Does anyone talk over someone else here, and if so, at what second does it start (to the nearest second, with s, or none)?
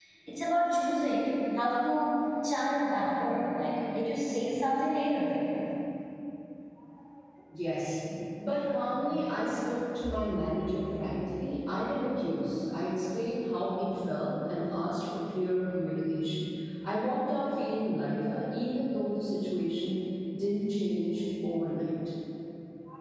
none